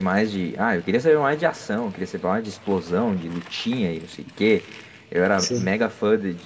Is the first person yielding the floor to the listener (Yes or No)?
No